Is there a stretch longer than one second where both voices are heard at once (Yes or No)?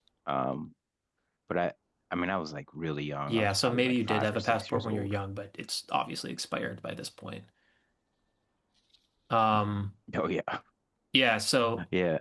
Yes